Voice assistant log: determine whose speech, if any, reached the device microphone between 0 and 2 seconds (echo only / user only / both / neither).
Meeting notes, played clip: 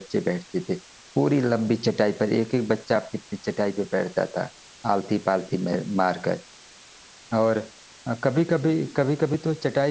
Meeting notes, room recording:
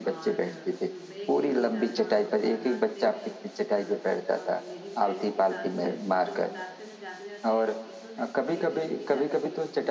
both